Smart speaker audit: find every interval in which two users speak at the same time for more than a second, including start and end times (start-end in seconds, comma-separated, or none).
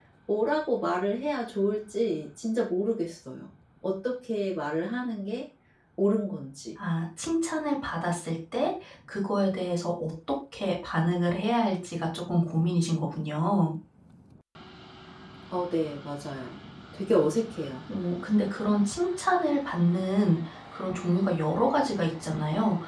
none